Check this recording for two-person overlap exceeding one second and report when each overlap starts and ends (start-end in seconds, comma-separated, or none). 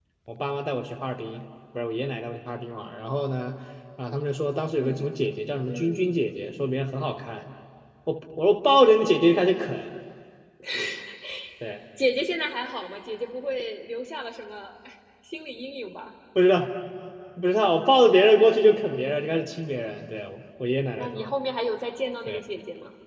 none